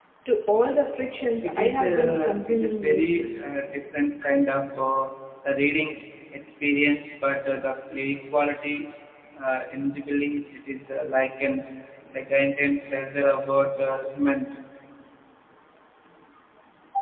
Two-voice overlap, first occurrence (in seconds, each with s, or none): 1.4 s